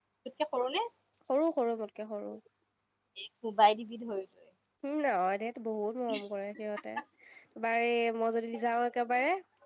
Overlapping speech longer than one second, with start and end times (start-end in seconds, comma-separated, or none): none